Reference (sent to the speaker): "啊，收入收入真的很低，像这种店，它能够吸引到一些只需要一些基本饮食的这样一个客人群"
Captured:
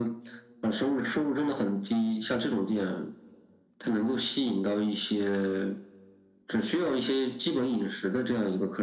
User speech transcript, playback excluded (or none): none